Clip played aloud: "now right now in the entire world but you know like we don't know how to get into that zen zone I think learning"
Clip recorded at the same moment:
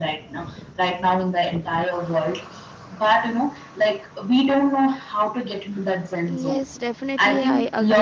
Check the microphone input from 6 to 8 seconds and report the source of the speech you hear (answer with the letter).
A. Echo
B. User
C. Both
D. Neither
C